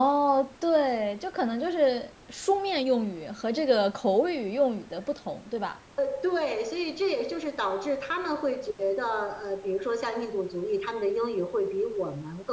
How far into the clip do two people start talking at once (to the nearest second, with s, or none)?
none